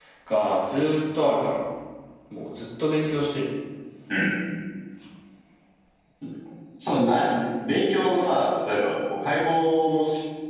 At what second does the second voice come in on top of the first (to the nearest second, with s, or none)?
none